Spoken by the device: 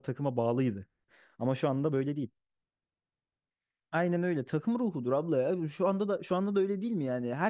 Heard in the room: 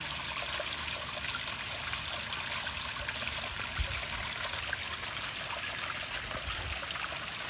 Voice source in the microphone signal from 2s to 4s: neither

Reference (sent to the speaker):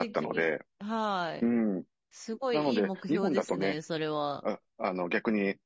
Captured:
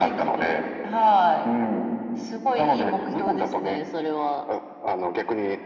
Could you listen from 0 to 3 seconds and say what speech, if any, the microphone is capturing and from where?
echo only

